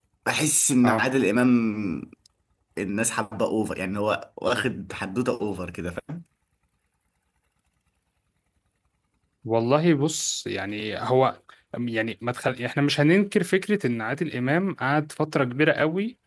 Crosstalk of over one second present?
No

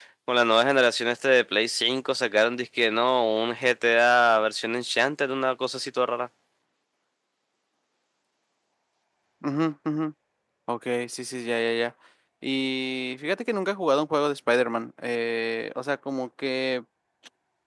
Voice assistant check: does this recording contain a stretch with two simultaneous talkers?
No

